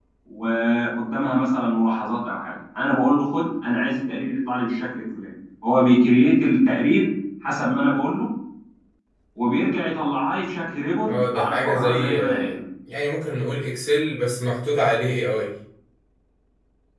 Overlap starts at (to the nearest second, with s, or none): 11 s